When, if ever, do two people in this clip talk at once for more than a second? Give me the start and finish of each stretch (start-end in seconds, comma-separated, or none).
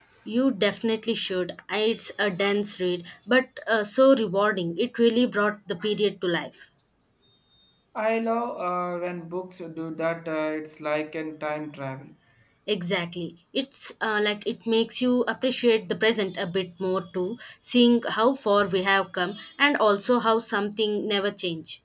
none